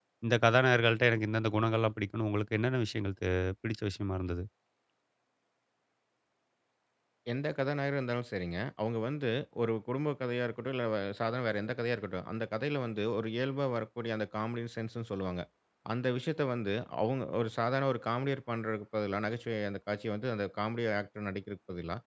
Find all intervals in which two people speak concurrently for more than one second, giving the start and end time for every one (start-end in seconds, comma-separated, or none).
none